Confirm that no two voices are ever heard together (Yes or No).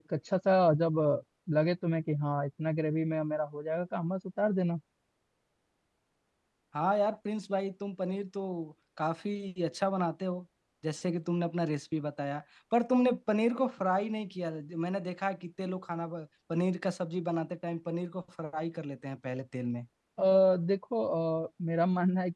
Yes